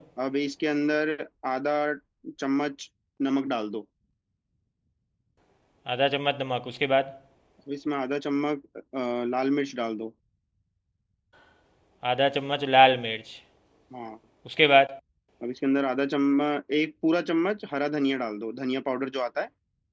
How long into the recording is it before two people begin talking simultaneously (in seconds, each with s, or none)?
none